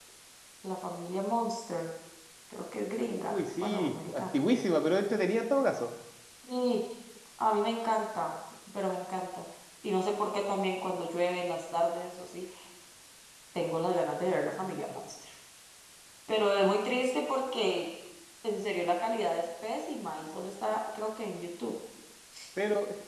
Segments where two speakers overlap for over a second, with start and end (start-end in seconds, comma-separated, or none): 3.0-4.3